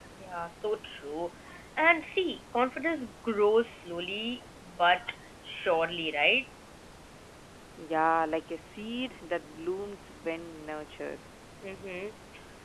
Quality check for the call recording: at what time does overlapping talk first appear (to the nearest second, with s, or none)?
none